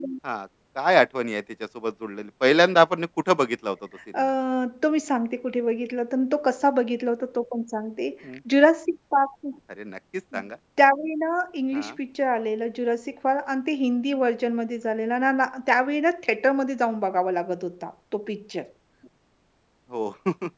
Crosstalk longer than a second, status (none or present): none